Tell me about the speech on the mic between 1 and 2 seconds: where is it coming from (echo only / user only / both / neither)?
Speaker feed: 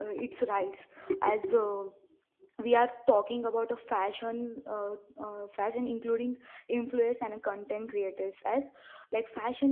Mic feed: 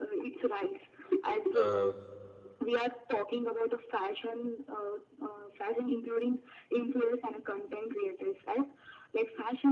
both